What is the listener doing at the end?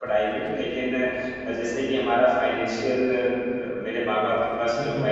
listening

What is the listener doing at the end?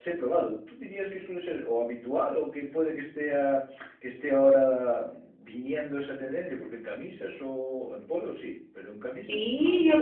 taking over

